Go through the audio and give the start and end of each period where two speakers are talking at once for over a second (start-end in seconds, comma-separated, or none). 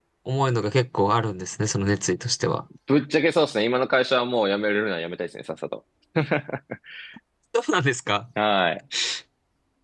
none